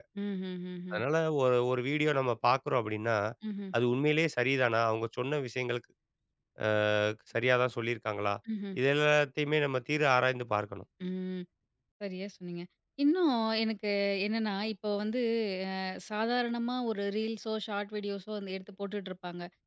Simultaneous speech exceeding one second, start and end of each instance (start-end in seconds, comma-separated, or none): none